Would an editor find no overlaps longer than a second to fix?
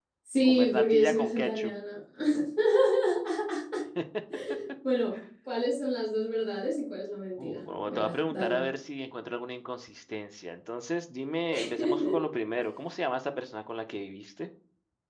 No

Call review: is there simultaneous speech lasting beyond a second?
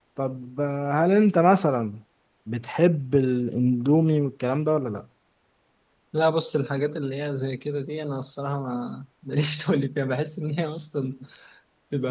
No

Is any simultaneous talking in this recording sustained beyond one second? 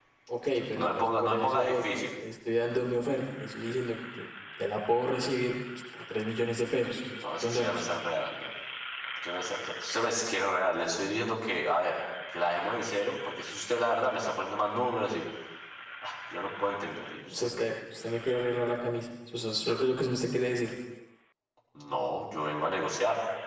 Yes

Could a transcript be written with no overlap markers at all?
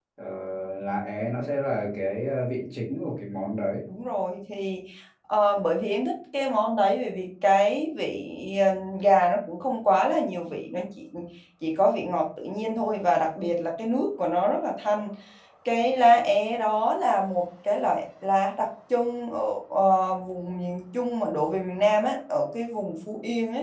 Yes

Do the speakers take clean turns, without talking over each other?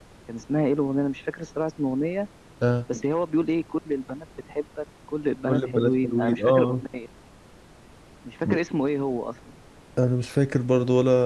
No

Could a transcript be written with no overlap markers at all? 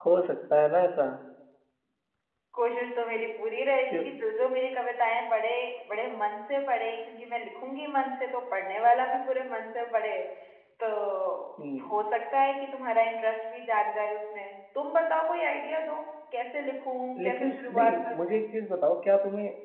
No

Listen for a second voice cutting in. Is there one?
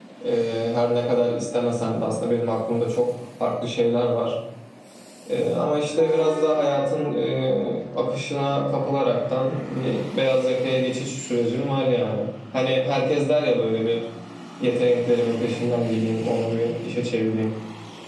No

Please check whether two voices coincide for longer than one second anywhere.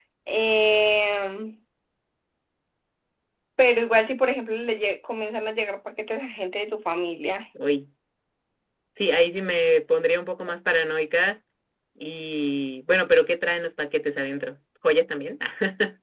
No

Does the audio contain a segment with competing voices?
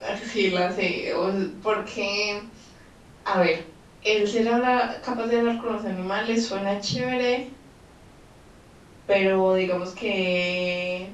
No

